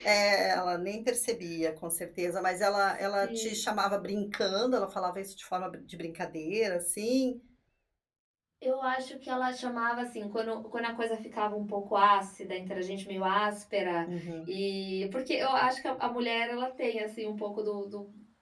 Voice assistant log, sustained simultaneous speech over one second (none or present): none